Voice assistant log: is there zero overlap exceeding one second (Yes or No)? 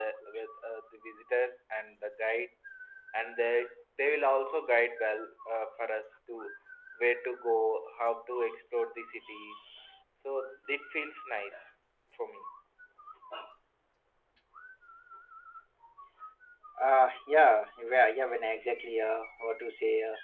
Yes